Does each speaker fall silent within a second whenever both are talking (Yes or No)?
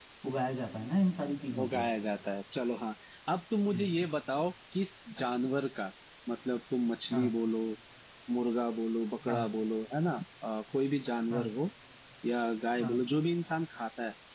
Yes